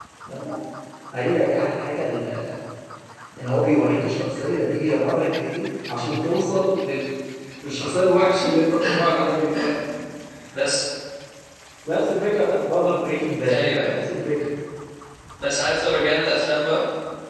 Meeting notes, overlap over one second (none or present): none